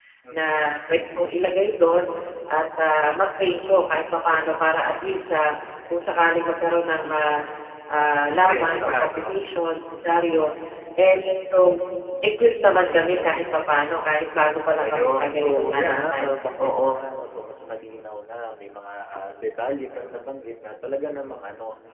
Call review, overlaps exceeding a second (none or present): present